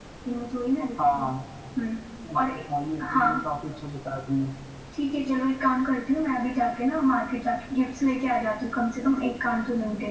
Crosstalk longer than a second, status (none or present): none